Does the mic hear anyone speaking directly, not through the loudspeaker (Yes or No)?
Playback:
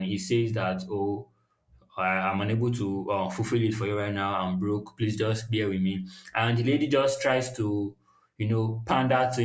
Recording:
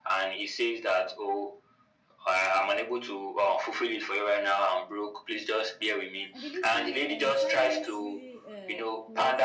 Yes